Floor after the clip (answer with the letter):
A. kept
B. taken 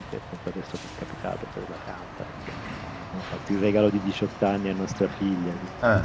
A